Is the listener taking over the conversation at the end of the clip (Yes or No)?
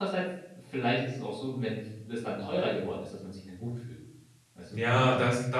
Yes